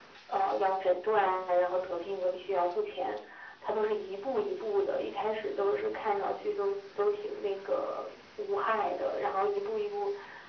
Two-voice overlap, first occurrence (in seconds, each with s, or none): none